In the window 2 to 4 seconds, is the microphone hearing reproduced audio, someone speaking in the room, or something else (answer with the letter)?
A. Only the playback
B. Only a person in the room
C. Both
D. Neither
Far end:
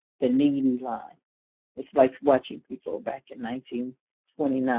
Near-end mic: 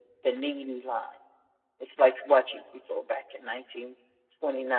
A